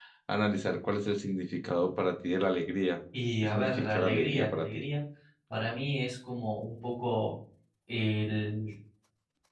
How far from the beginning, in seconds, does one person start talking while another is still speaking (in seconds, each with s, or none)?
3.4 s